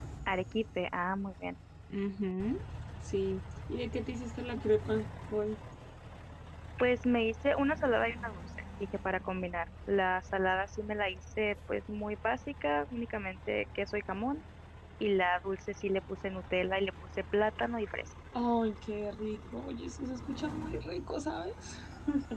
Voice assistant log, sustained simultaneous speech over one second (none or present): none